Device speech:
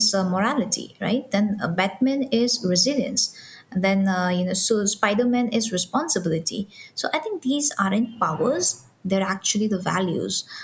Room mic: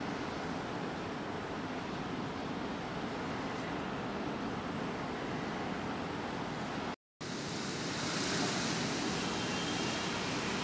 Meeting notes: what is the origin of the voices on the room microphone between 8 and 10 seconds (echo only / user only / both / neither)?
neither